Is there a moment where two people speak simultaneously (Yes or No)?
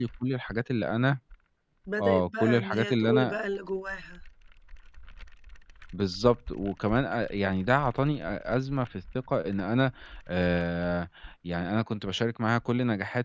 Yes